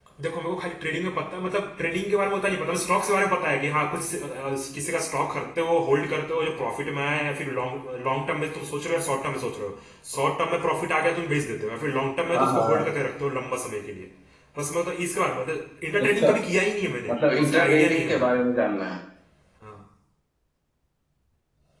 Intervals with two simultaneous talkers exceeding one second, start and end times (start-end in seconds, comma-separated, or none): 17.1-18.4